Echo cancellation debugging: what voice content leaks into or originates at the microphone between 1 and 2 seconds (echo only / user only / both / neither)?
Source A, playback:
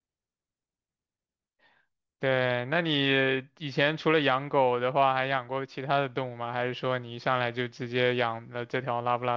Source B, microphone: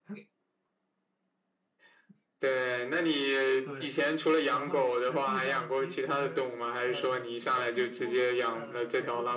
neither